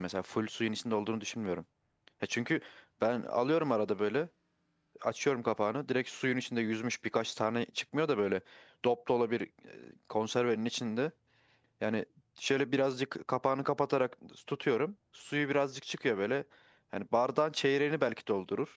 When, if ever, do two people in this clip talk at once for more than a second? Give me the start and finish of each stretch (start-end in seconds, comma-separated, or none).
none